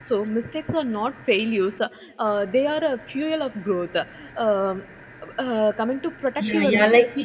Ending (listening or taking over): taking over